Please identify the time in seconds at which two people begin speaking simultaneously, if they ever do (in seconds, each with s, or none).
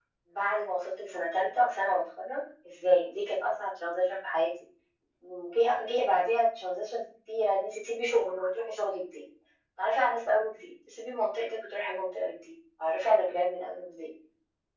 none